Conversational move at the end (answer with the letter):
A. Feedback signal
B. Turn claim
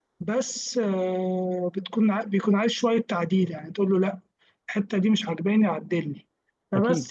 A